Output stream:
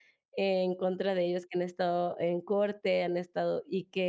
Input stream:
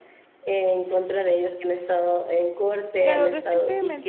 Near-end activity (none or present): present